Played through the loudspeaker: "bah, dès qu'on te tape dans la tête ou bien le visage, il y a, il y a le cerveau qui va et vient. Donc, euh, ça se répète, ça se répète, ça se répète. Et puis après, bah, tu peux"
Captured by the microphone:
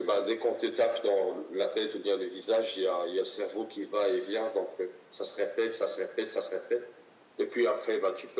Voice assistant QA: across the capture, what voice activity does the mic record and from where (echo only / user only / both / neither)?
echo only